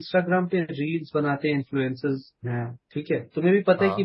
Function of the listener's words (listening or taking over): listening